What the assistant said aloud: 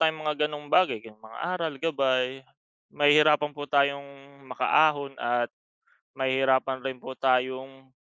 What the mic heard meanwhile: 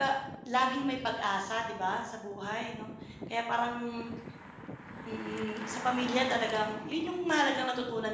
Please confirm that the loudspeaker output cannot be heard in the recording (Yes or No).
Yes